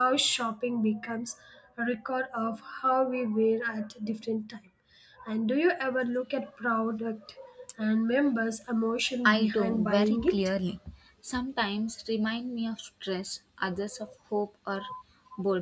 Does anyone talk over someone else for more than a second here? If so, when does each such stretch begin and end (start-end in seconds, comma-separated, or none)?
9.2-10.5